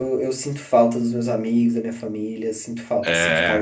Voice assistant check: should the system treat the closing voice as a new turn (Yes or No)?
Yes